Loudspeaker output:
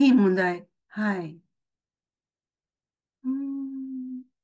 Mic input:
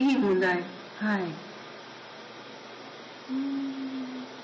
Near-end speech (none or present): none